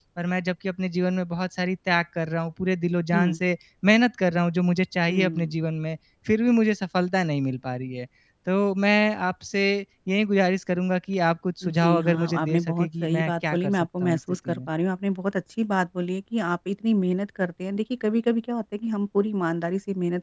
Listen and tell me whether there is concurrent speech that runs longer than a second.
Yes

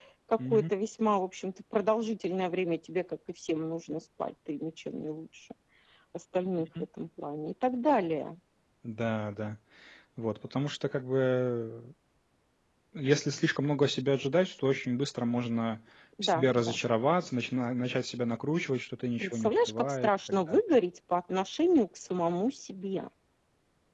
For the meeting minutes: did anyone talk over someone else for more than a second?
Yes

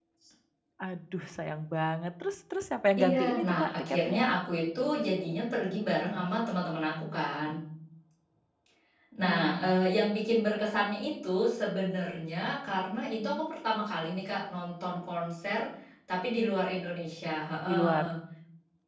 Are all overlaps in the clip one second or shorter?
No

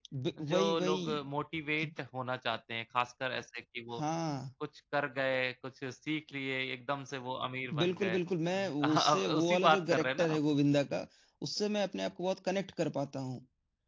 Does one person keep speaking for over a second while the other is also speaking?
Yes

